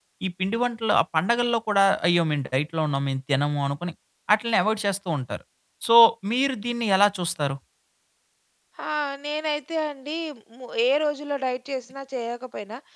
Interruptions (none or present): none